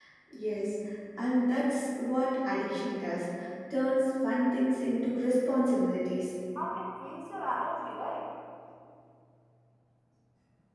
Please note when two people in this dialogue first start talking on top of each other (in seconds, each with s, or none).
none